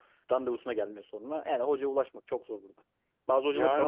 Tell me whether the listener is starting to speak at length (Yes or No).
Yes